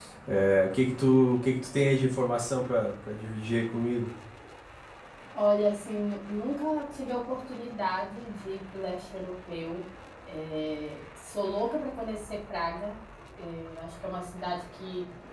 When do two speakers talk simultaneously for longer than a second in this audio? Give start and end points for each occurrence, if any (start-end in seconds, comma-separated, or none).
none